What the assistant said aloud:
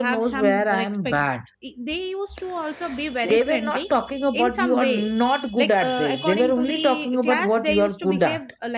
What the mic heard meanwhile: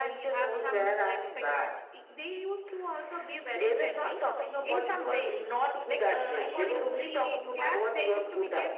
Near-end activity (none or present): none